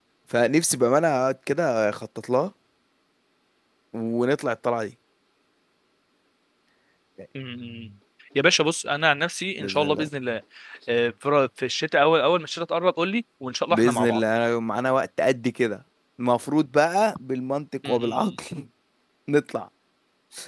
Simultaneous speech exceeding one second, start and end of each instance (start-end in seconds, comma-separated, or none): none